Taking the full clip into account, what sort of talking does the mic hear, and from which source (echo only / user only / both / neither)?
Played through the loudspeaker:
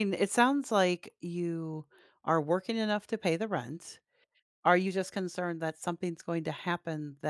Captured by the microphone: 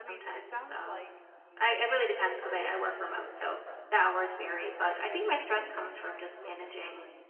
both